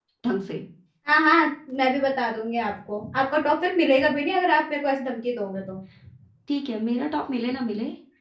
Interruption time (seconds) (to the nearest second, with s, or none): none